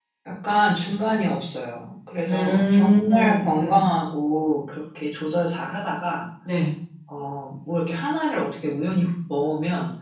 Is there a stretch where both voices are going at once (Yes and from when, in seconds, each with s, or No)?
Yes, from 2.2 s